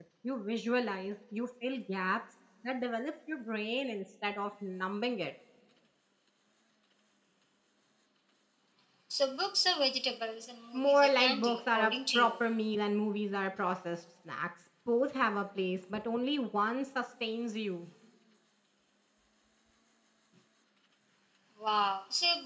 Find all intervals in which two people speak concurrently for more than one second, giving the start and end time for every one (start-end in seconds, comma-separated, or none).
10.7-12.3